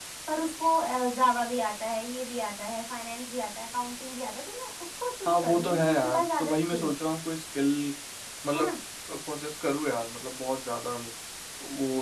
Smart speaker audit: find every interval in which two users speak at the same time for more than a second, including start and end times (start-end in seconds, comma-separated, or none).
5.3-6.9